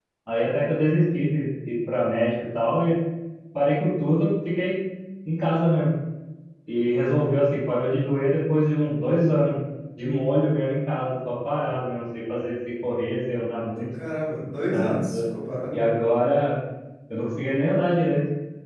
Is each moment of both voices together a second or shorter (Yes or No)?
Yes